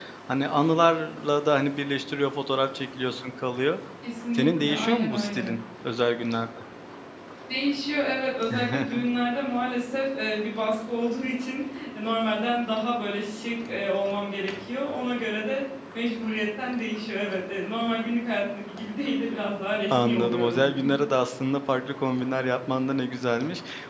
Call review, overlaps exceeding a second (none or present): present